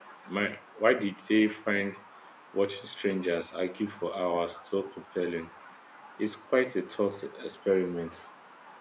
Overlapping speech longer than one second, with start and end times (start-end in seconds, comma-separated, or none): none